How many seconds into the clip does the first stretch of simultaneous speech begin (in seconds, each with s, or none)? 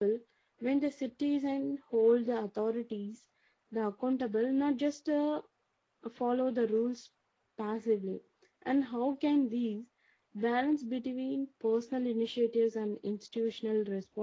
none